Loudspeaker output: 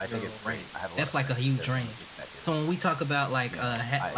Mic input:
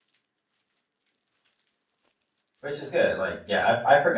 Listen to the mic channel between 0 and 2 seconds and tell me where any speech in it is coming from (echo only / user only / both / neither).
neither